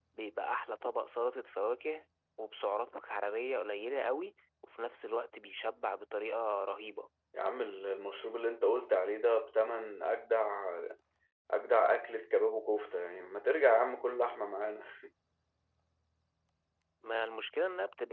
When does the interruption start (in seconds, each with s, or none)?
none